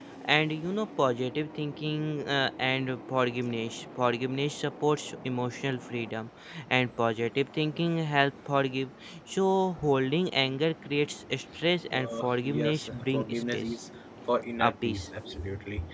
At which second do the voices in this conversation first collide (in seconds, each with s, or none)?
12.0 s